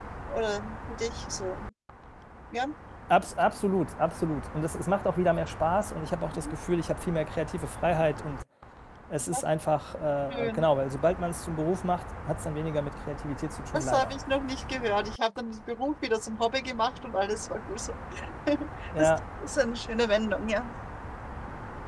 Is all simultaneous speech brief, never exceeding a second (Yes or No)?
Yes